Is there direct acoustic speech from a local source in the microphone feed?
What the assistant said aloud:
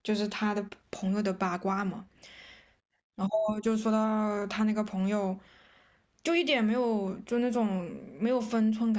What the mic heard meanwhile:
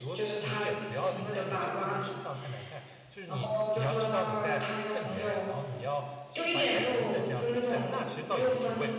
Yes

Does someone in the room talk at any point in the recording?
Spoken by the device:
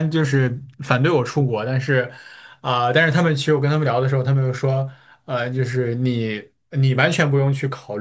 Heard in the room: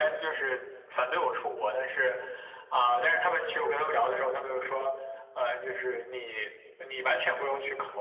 No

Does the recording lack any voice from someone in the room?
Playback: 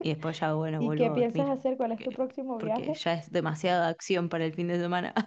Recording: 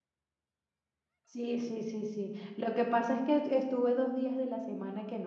No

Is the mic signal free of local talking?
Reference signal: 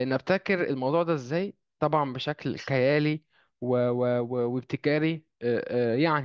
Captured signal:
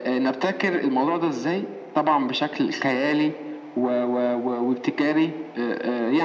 Yes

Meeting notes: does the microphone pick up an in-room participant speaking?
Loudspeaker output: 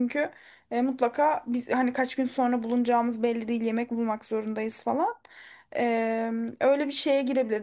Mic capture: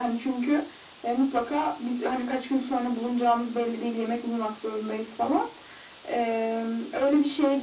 No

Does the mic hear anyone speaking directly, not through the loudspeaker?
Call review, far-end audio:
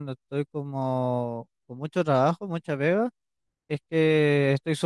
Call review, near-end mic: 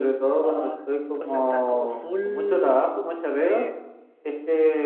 Yes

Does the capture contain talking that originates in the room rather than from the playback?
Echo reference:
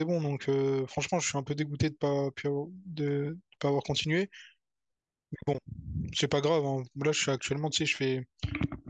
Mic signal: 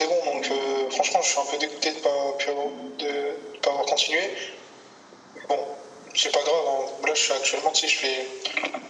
No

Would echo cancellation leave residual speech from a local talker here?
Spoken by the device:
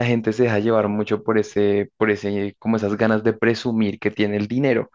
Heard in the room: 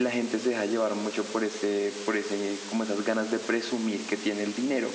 No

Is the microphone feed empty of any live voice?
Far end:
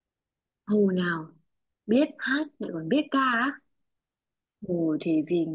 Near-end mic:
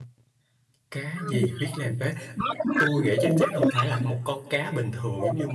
No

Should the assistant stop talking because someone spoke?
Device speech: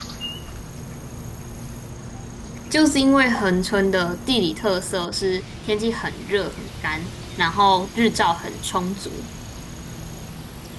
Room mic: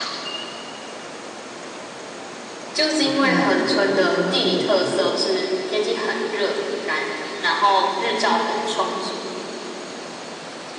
Yes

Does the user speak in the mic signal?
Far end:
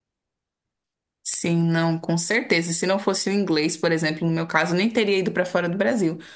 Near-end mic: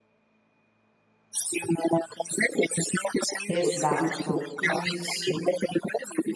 Yes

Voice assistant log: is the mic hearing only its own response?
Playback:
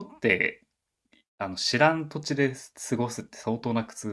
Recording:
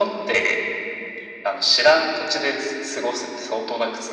Yes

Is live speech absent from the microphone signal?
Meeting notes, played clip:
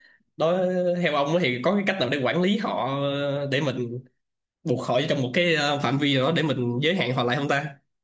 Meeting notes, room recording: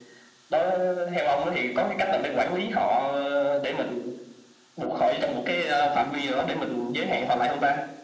Yes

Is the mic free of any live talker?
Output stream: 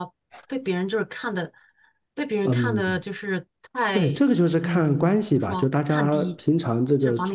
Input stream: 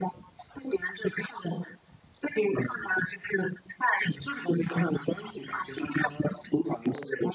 Yes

